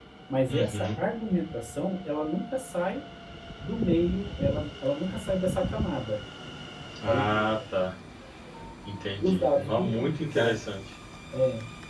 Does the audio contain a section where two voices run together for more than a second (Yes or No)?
Yes